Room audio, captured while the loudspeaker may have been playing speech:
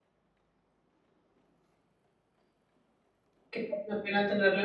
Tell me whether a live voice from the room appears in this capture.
Yes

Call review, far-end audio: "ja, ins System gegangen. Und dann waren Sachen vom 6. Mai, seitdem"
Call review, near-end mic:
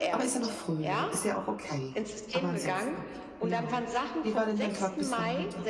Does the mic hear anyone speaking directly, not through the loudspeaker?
Yes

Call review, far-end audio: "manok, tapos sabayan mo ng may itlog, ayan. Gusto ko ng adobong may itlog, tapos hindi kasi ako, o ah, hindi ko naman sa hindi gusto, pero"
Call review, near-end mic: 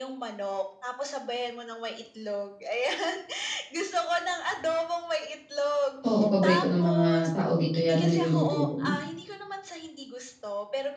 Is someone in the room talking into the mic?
Yes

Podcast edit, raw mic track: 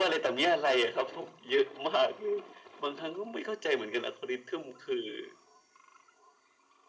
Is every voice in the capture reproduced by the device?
Yes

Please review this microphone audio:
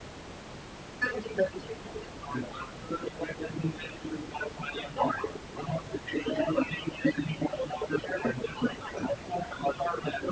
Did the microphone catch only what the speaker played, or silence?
Yes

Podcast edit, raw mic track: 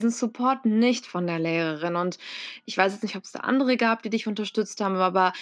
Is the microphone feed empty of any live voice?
No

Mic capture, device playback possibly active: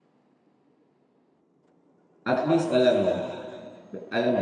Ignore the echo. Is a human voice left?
Yes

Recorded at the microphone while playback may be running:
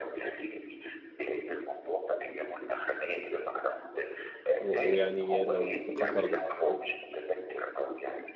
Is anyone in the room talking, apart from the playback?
Yes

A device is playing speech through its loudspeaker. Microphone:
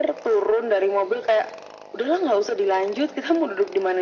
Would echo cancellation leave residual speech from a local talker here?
No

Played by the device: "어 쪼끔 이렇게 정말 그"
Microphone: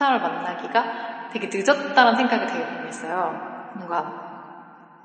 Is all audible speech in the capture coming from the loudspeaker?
No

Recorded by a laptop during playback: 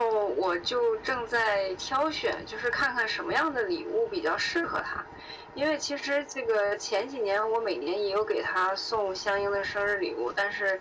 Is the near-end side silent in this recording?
Yes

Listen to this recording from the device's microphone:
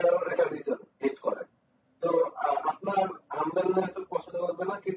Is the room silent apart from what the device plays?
Yes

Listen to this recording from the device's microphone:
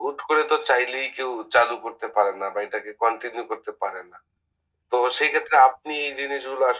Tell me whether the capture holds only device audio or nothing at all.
Yes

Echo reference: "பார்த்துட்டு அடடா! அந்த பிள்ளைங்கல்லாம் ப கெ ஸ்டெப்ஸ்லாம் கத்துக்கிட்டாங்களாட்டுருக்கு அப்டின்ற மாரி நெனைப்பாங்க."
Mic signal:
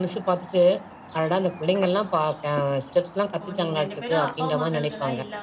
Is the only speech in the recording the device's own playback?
No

